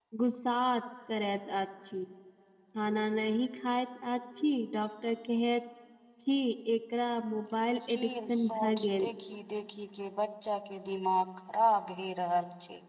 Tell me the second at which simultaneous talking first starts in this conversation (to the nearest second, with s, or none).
8 s